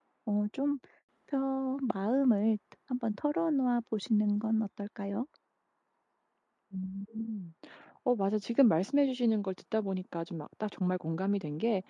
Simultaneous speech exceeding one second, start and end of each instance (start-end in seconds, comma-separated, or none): none